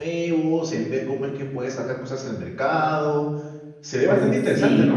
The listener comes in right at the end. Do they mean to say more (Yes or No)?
Yes